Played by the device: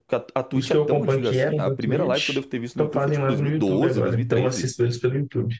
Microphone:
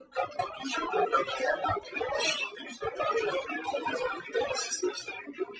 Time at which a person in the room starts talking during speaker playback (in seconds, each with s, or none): none